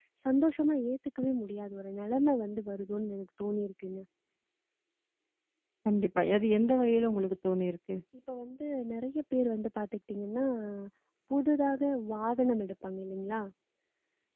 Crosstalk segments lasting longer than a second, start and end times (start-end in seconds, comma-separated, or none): none